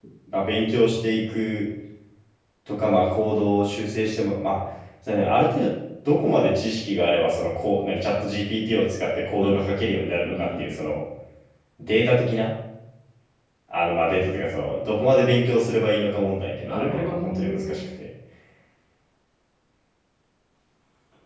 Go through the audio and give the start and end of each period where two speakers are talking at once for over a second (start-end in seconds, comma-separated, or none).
16.6-17.9